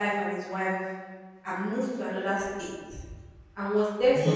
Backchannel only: Yes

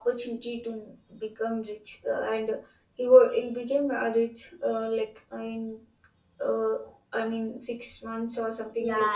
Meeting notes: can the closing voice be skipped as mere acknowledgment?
No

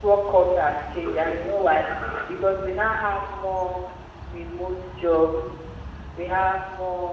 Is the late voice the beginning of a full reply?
No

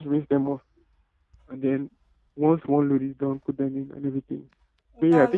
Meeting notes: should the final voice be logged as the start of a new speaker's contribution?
No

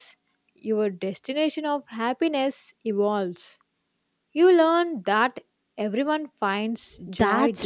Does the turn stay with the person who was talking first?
No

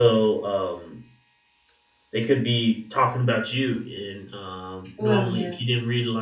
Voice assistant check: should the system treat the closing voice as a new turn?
No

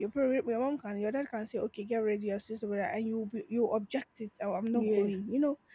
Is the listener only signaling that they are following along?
Yes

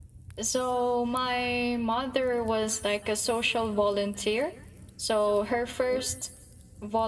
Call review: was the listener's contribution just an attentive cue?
Yes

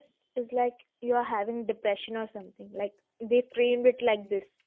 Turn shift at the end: Yes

